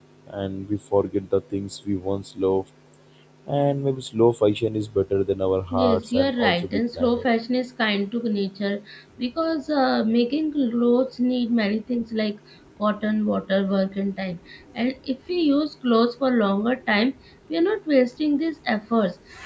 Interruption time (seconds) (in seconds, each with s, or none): 5.7 s